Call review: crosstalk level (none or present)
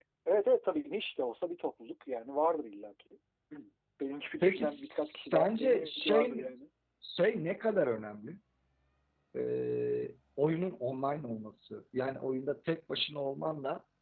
present